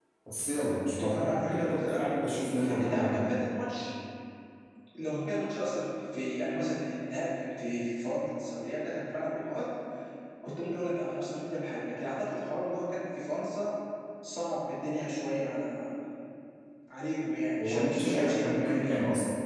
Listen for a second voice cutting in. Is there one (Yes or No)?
Yes